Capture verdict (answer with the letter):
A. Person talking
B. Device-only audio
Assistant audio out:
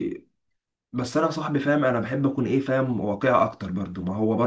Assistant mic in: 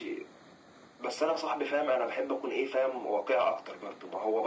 B